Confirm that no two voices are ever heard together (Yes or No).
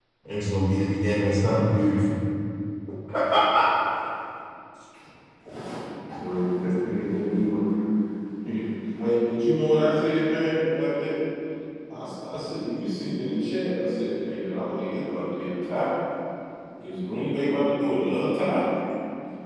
Yes